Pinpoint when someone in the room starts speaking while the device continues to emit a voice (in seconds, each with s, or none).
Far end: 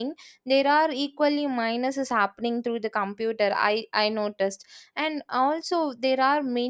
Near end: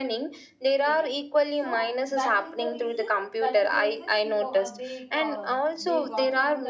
0.8 s